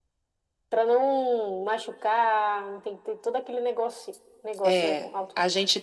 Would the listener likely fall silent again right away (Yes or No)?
No